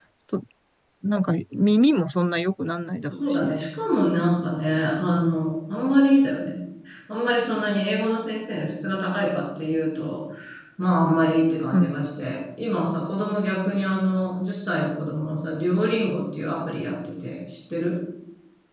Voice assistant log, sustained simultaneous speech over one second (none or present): none